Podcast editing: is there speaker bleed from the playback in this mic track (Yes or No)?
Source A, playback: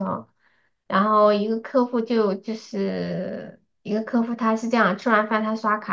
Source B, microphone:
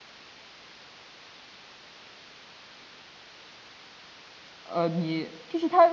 No